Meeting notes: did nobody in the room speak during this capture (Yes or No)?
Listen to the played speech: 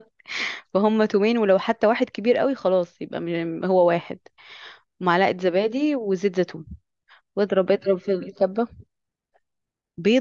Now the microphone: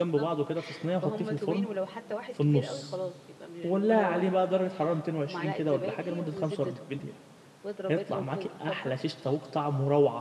No